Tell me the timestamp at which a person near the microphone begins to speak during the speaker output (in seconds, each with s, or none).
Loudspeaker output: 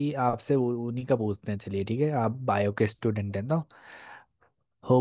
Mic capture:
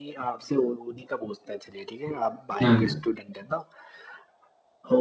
2.6 s